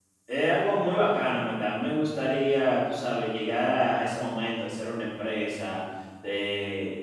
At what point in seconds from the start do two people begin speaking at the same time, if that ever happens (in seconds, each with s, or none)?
none